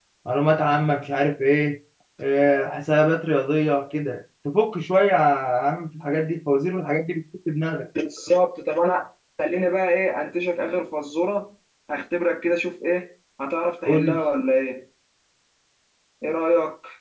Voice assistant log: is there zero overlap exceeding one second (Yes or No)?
Yes